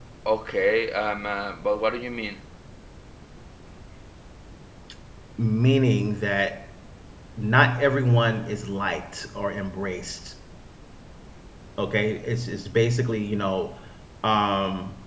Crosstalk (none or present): none